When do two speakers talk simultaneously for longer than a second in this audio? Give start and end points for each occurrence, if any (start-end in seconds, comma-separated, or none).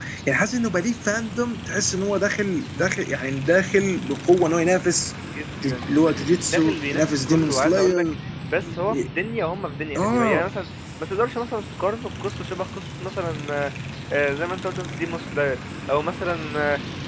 5.7-8.1